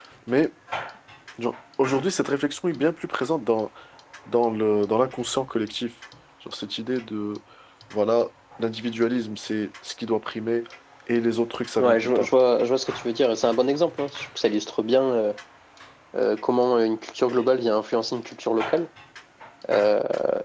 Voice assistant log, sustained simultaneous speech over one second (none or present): none